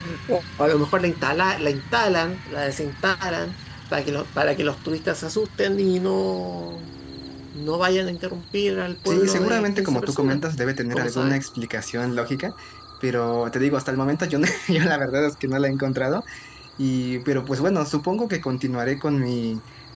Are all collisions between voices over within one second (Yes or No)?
No